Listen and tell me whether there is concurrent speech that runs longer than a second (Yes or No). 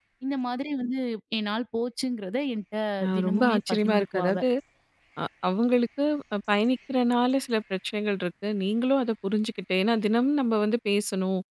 Yes